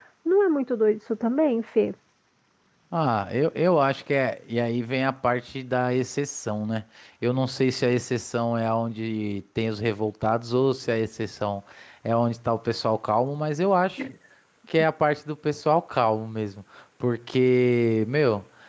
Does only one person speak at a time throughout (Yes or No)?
Yes